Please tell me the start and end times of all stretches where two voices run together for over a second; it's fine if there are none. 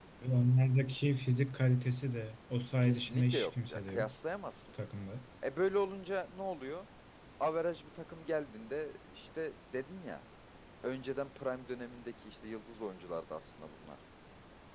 2.8-4.1

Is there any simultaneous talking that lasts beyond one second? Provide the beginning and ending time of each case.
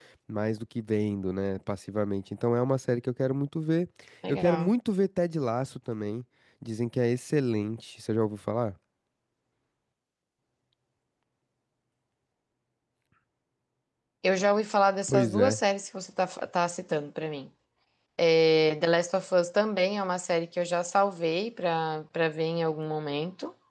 none

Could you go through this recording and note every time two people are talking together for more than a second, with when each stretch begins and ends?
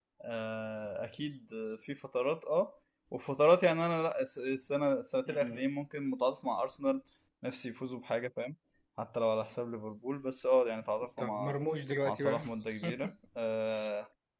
none

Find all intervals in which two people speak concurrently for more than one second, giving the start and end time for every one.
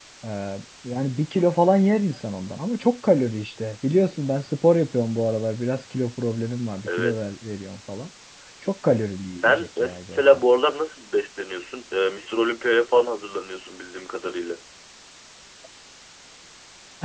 8.9-10.2

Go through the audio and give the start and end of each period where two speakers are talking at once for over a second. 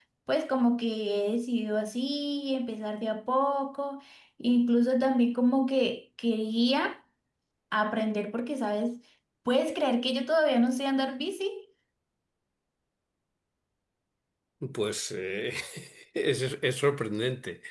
none

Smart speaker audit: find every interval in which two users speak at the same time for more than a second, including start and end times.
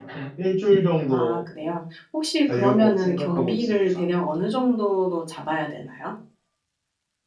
2.5-4.0

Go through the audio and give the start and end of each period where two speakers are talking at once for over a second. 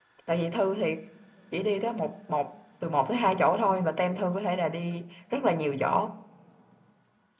none

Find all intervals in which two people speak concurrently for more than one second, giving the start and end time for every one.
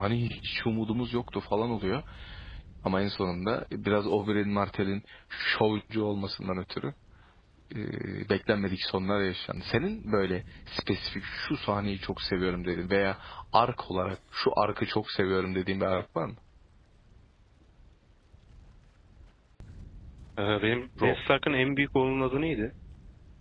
none

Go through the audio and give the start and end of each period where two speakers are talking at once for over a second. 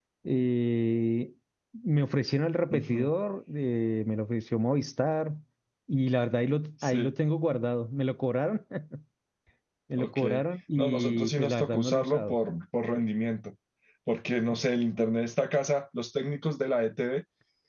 10.8-12.3

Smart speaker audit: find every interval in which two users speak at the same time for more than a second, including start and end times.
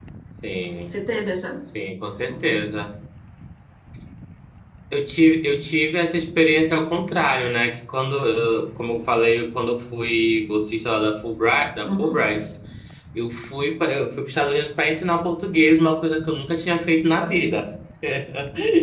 none

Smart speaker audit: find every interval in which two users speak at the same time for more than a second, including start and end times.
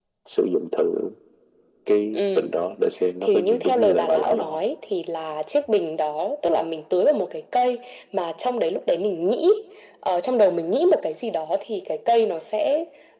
3.2-4.6

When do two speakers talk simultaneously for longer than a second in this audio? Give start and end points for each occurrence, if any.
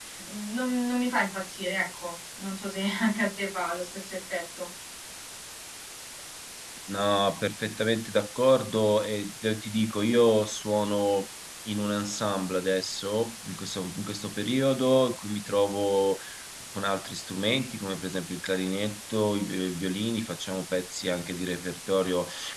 none

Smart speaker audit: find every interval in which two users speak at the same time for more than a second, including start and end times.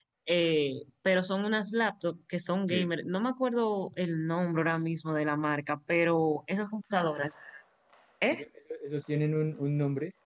none

